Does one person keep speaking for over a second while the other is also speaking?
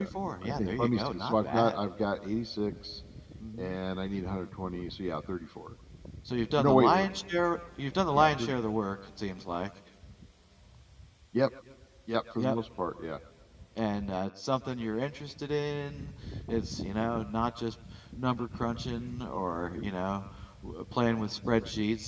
Yes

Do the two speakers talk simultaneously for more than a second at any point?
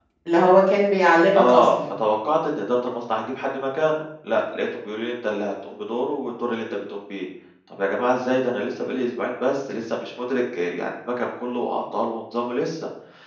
No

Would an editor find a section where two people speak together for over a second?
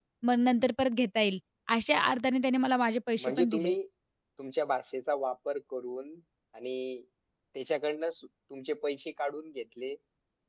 No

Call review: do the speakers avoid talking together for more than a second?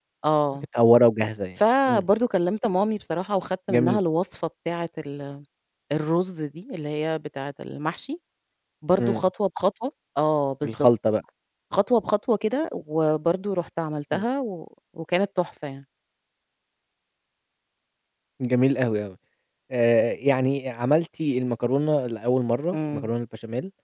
Yes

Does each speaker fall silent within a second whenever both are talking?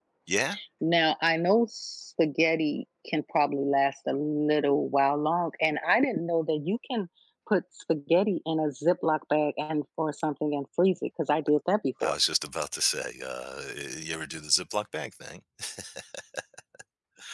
Yes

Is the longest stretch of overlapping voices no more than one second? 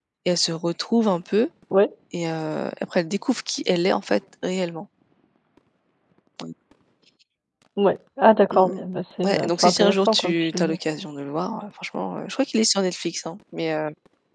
No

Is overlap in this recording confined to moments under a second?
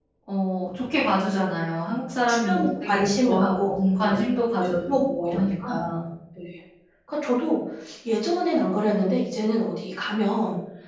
No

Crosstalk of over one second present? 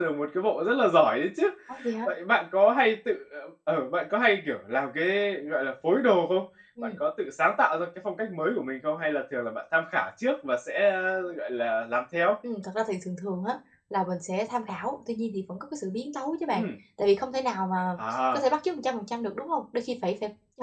No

